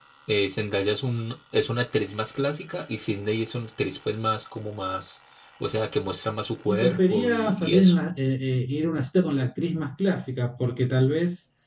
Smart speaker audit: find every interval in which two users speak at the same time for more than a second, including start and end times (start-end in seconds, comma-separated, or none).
6.7-8.0